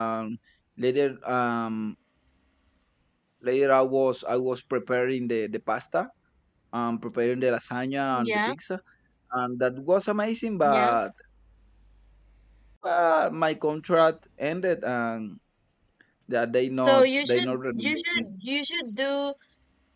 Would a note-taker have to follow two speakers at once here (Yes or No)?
Yes